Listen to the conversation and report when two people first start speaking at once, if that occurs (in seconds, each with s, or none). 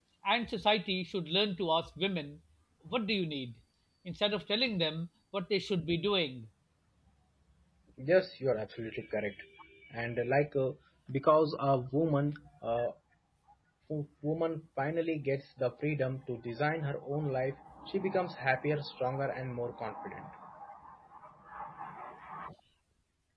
none